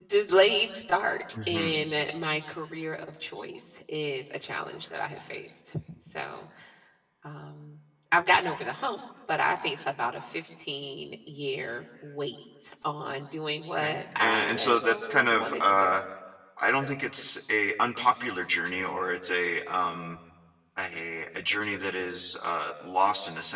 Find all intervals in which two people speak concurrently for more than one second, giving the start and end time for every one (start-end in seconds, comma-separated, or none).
13.7-15.9